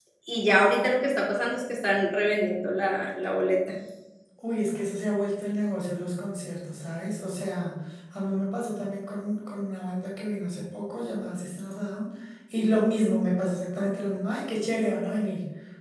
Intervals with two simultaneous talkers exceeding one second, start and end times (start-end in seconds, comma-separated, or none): none